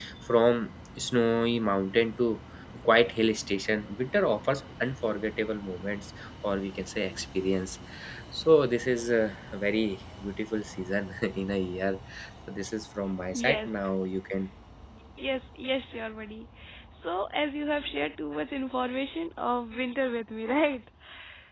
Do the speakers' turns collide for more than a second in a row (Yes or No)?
No